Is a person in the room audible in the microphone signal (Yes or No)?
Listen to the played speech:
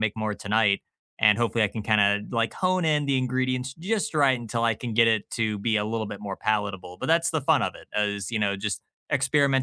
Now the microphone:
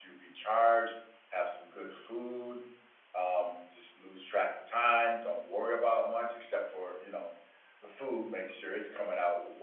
Yes